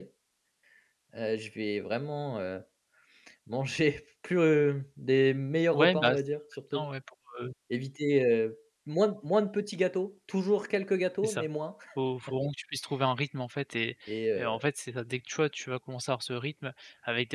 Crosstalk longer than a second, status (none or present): none